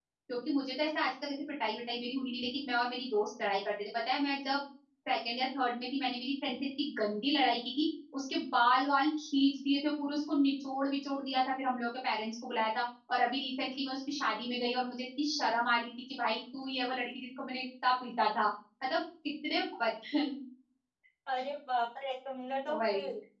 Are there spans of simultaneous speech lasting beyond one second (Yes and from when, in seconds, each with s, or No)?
No